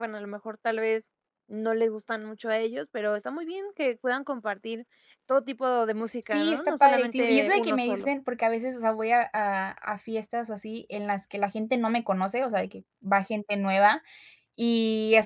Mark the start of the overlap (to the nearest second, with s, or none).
6 s